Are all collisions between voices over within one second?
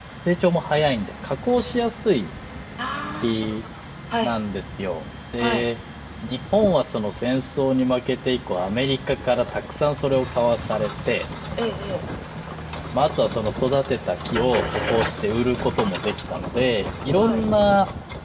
Yes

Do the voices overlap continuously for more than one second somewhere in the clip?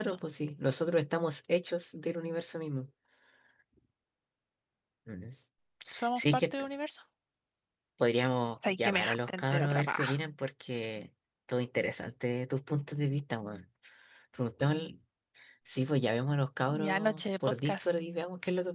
Yes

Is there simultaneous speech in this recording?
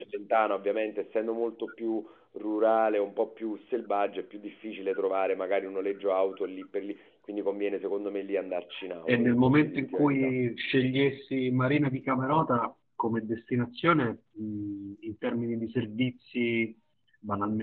Yes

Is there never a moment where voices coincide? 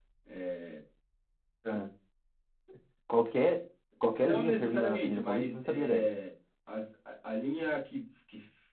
No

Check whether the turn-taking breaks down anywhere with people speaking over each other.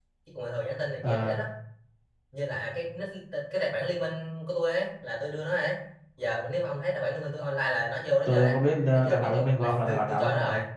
Yes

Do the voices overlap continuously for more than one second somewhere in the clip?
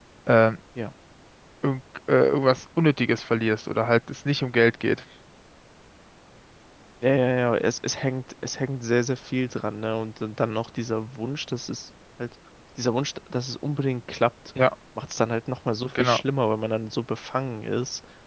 No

